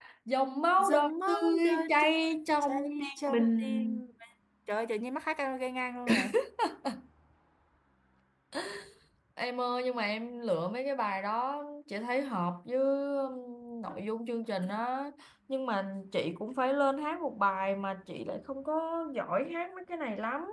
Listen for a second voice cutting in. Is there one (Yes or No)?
Yes